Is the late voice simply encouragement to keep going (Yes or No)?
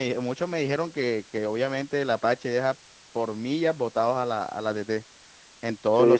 No